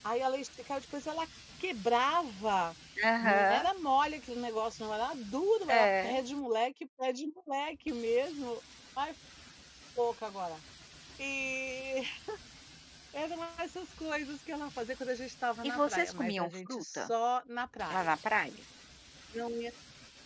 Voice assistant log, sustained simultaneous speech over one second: present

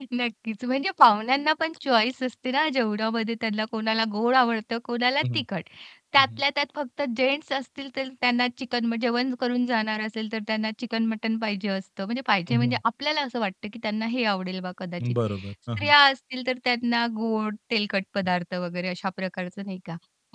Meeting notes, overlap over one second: none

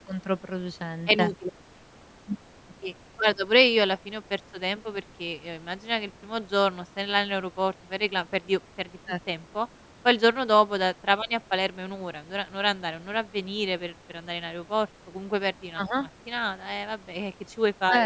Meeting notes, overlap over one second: none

